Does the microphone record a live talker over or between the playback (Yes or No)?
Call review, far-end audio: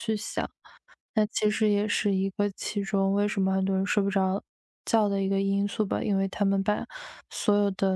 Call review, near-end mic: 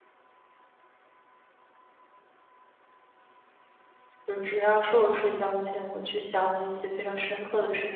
Yes